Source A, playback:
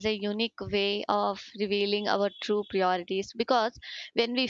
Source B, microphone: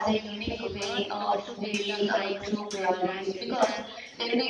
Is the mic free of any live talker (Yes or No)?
No